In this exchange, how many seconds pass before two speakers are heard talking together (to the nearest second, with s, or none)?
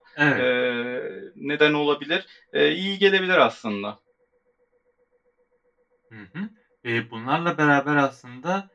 none